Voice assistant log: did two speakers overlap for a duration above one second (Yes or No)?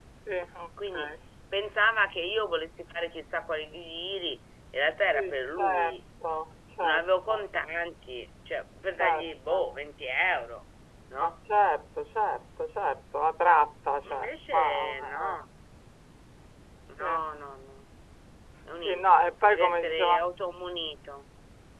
Yes